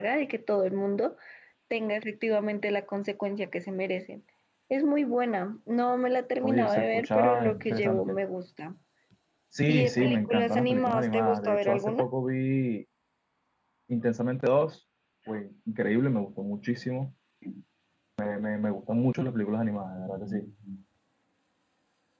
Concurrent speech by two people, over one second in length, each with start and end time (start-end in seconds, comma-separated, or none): 6.4-8.2, 9.7-12.1